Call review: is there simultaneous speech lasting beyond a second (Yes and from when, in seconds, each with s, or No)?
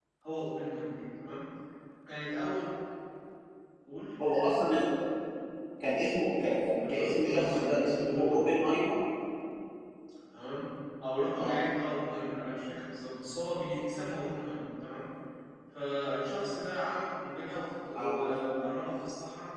Yes, from 6.7 s